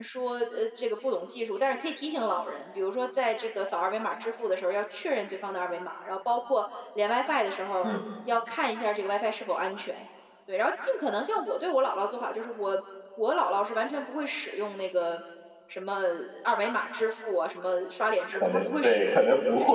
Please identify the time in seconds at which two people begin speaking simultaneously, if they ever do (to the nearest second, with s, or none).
18 s